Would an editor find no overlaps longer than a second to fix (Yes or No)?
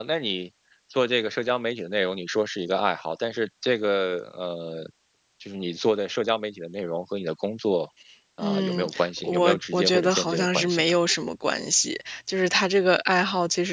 No